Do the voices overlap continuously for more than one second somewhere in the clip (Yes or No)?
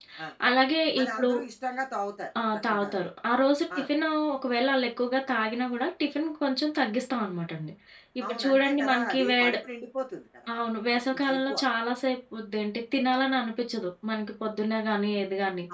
Yes